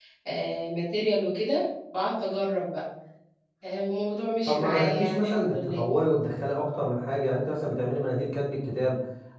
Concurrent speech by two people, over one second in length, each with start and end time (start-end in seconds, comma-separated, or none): 4.5-5.8